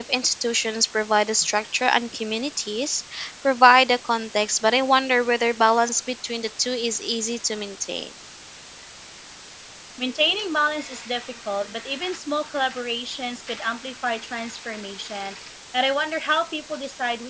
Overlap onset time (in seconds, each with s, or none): none